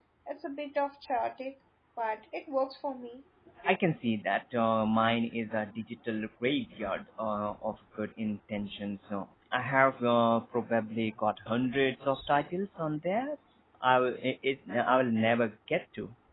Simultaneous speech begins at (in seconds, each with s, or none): none